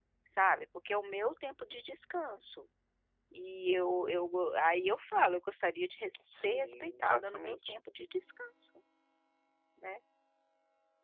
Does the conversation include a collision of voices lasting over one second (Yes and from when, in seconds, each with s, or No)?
Yes, from 6.3 s